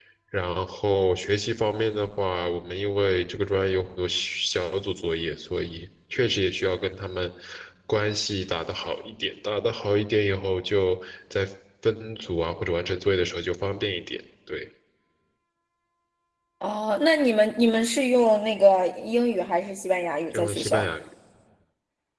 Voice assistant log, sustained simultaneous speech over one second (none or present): none